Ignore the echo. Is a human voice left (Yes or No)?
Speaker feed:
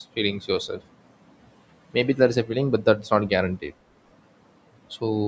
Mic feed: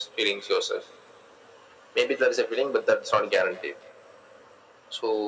No